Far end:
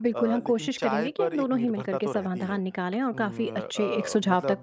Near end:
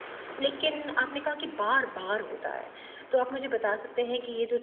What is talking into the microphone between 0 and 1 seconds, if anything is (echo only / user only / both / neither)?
user only